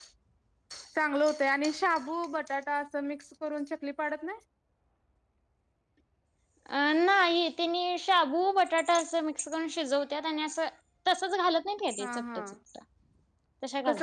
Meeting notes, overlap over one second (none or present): none